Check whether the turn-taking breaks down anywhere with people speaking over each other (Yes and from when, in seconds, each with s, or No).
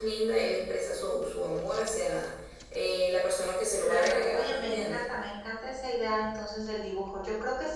Yes, from 3.8 s